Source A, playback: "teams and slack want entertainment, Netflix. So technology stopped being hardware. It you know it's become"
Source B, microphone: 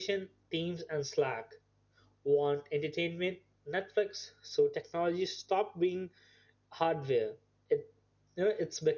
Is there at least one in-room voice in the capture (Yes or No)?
No